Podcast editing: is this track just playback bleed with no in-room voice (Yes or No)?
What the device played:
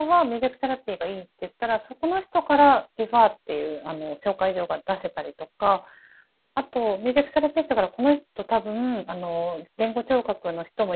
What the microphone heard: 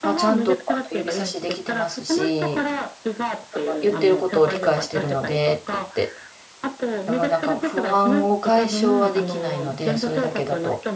No